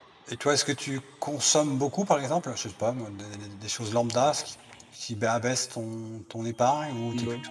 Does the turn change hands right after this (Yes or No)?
No